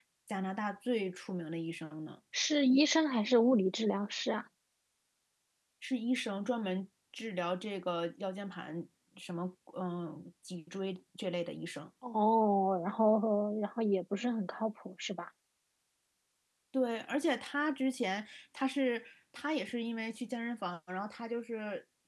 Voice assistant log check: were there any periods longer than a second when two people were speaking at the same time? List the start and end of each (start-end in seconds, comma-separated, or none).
none